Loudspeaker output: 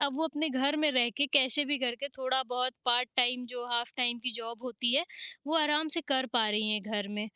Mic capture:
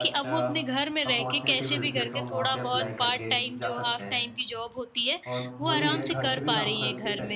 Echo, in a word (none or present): present